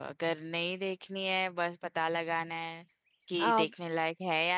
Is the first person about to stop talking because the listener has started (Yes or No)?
No